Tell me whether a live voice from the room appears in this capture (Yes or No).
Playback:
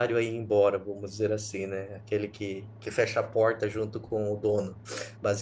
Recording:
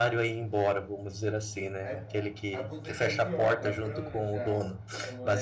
Yes